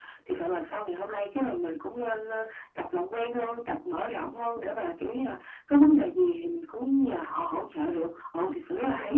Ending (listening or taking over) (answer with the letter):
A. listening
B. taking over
B